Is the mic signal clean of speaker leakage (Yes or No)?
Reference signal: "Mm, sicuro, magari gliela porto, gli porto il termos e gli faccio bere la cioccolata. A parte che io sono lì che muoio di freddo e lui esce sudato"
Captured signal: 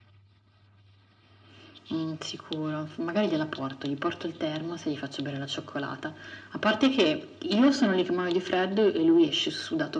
No